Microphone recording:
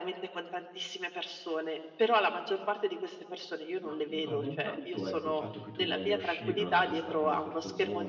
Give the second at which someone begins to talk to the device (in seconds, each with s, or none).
3.8 s